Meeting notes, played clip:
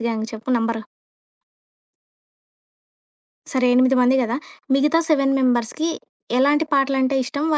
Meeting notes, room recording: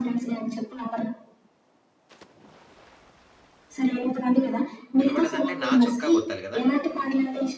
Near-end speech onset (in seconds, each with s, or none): 5.0 s